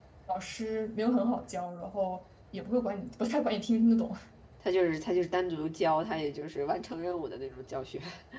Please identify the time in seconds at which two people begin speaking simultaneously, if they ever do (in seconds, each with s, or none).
none